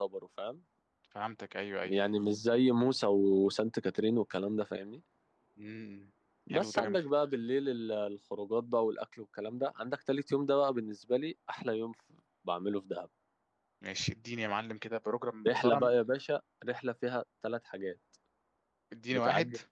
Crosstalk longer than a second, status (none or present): none